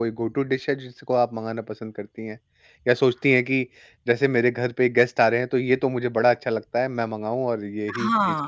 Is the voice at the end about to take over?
Yes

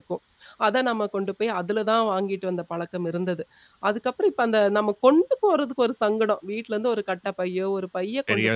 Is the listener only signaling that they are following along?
Yes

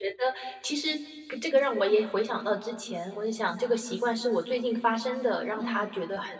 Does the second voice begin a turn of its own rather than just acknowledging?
No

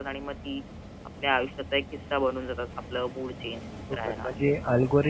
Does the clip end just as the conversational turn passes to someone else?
Yes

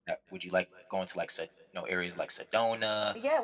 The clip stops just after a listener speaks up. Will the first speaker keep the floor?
No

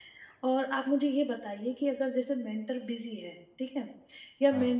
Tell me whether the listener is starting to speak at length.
No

